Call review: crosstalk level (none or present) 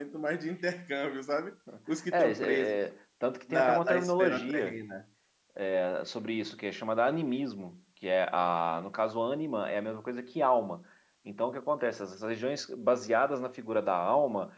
present